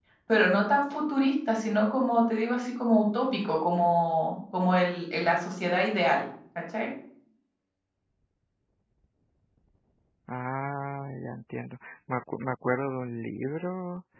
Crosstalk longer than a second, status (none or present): none